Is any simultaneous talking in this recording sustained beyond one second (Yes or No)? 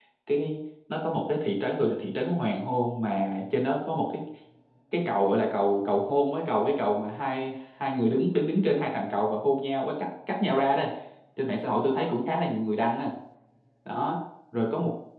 No